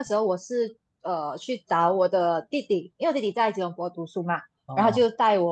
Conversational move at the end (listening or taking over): listening